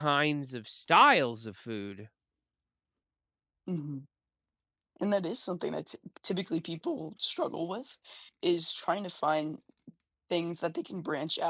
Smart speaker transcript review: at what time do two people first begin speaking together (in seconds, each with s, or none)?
none